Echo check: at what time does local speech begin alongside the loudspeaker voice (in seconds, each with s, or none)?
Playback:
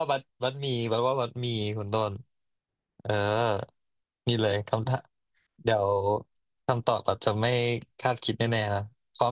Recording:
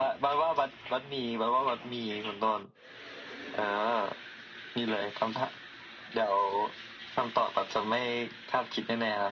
none